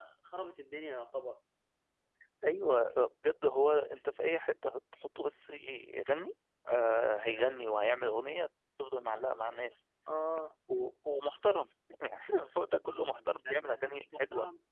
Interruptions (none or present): present